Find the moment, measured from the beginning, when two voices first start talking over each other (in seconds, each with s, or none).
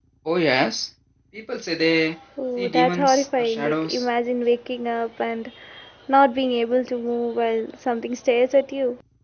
2.4 s